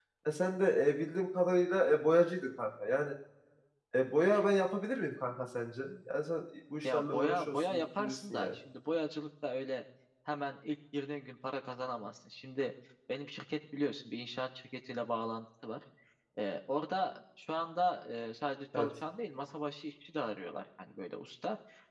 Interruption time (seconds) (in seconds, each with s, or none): 6.8 s